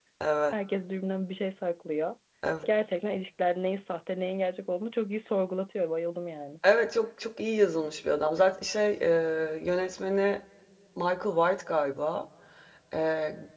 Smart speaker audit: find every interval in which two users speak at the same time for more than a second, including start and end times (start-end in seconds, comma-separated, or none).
none